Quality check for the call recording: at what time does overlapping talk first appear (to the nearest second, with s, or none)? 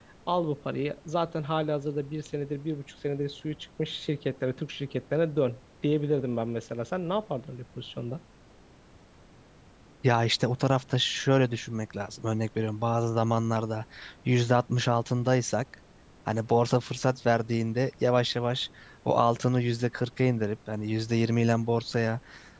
none